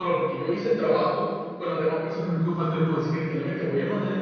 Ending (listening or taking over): listening